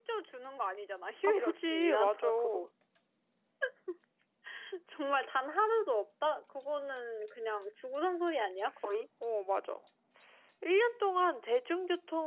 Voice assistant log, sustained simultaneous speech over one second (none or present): present